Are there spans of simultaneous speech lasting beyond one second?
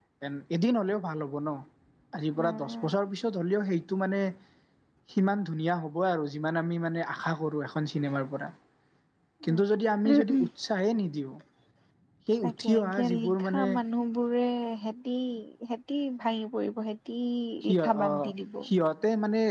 Yes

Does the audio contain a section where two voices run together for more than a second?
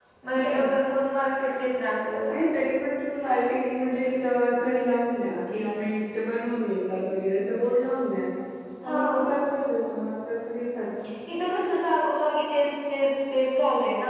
No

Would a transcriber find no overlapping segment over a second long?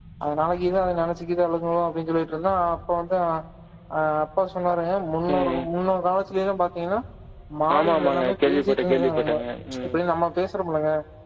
No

